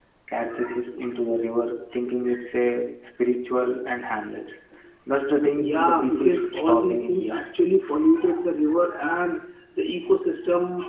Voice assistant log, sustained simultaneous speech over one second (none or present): present